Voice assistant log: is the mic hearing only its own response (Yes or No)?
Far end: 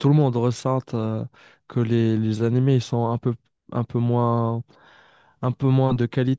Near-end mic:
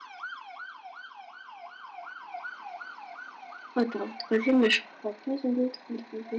No